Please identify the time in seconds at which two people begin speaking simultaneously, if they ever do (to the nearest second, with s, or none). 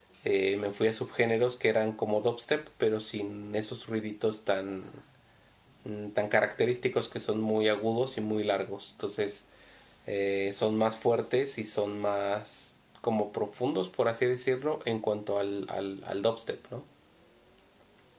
none